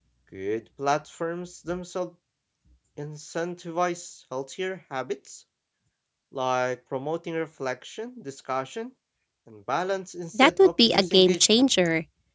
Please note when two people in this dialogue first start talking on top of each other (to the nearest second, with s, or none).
10 s